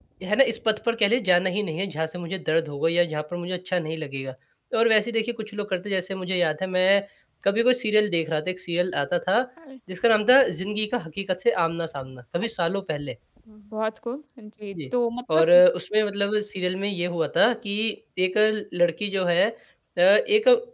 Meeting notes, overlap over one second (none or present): none